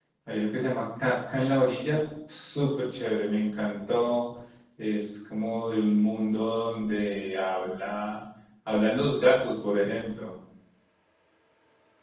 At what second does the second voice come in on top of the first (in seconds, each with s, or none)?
none